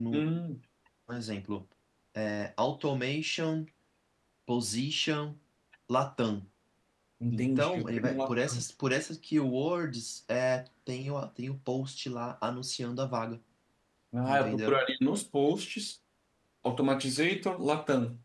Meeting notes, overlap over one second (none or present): present